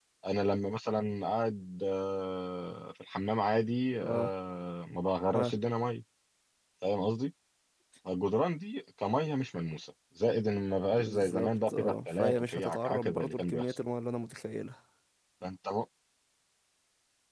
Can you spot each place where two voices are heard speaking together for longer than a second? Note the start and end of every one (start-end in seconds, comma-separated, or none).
10.9-13.8